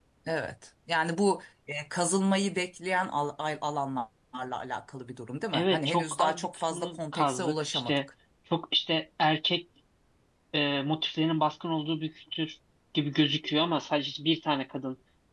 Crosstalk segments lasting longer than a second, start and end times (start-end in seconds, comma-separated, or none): 5.5-8.0